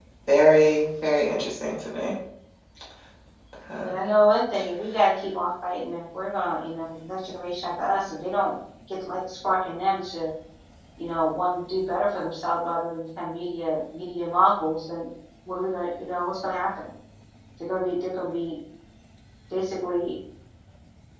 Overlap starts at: none

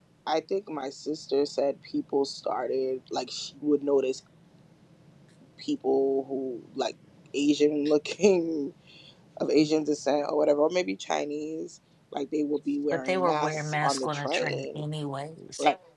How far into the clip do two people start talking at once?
12.9 s

